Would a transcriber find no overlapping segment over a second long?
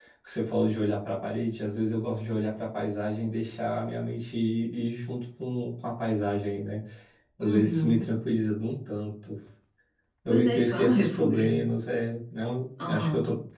No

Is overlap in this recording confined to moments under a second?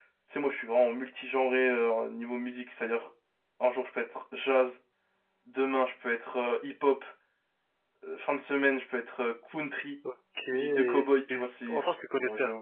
No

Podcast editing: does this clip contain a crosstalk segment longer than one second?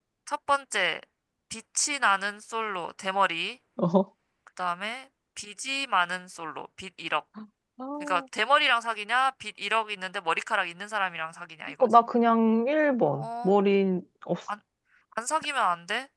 No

